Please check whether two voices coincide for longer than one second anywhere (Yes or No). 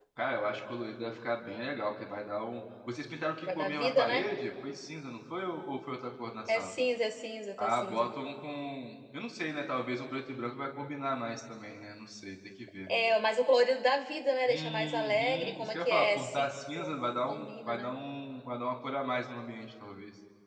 Yes